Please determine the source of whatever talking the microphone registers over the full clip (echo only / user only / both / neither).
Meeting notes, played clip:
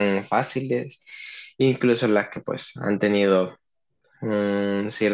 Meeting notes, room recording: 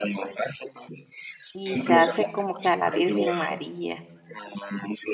both